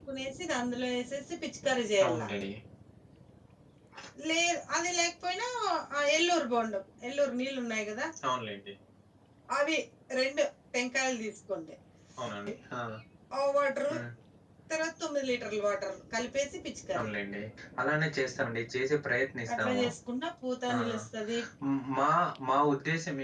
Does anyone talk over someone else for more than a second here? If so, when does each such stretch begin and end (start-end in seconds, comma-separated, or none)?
none